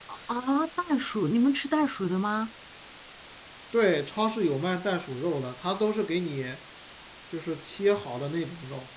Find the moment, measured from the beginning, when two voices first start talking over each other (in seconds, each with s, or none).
none